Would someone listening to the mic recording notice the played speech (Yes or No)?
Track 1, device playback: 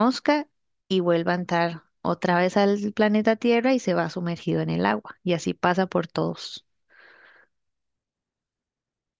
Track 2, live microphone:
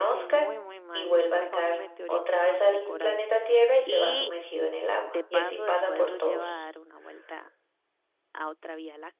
Yes